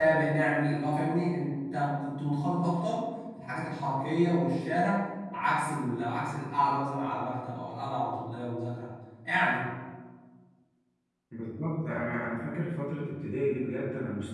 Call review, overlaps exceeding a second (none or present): none